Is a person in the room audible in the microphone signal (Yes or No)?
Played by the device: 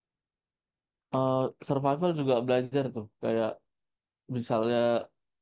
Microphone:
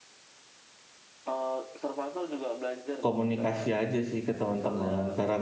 Yes